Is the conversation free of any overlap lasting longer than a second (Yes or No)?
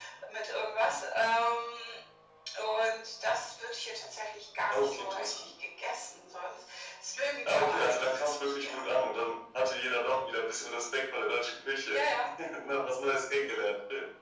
No